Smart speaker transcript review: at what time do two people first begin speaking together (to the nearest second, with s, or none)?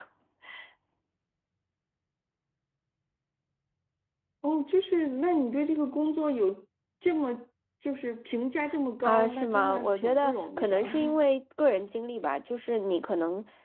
9 s